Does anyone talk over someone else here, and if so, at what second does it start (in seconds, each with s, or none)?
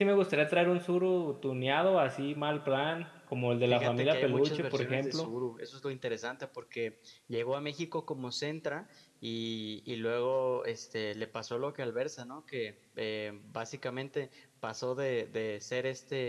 3.7 s